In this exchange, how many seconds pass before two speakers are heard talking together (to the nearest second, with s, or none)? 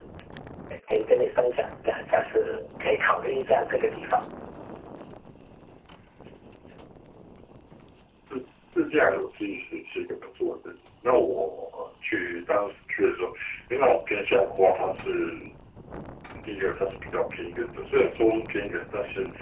none